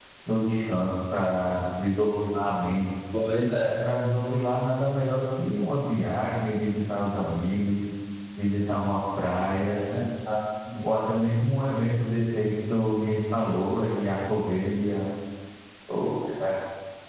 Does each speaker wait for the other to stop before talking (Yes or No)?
Yes